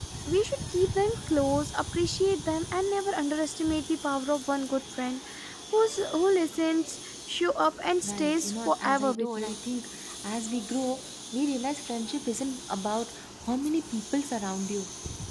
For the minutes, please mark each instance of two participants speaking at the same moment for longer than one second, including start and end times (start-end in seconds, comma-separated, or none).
8.0-9.6